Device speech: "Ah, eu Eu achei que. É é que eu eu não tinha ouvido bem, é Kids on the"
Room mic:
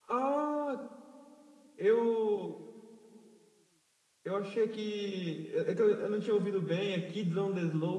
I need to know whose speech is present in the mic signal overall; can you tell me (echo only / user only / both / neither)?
echo only